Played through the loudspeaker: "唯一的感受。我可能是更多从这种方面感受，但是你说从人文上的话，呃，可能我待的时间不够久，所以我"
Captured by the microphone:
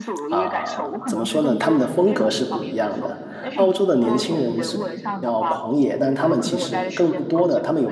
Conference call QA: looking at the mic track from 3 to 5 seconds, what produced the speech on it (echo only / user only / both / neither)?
both